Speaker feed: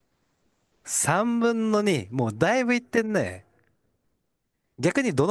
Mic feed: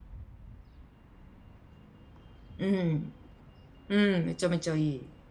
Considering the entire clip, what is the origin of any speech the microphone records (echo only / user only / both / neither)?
user only